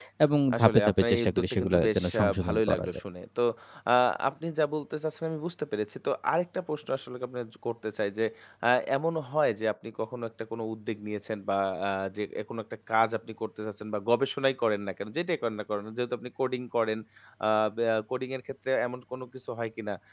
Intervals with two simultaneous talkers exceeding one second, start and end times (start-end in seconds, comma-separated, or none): 0.6-2.9